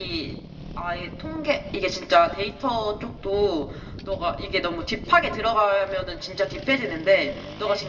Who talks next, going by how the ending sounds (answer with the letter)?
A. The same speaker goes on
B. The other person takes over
A